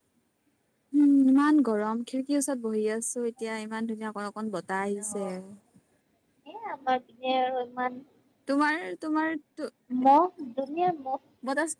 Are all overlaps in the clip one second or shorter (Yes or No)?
Yes